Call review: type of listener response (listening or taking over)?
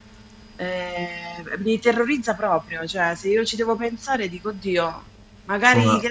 listening